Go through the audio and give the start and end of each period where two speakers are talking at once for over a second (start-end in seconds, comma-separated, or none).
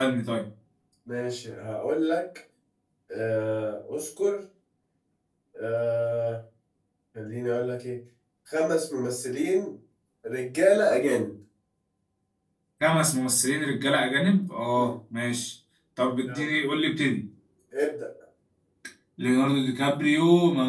none